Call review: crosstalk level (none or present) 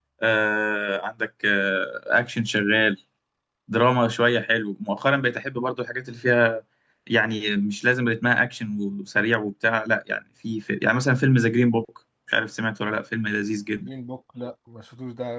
none